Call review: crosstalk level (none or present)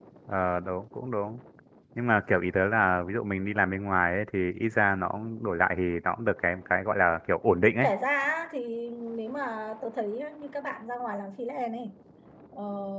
none